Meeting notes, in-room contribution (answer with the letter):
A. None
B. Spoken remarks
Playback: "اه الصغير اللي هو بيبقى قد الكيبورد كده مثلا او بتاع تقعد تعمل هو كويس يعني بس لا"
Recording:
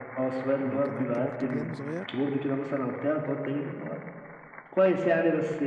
B